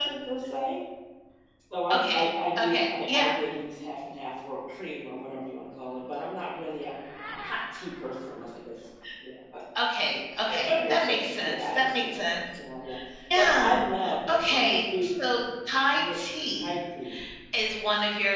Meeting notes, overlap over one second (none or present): present